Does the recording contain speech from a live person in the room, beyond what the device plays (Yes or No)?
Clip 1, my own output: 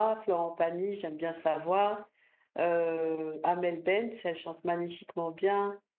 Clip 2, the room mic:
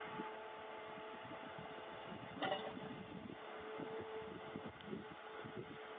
No